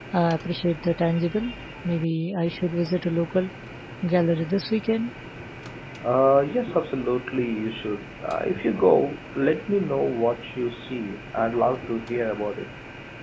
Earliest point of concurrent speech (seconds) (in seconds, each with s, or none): none